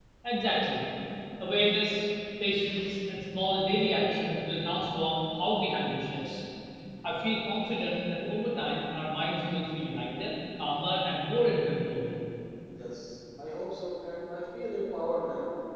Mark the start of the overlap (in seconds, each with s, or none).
none